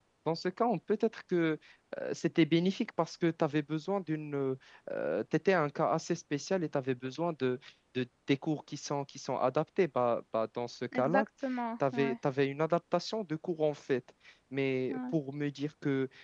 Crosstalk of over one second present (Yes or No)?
No